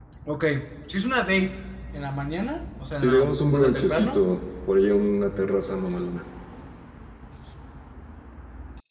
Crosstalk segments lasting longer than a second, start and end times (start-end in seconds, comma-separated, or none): 3.0-4.2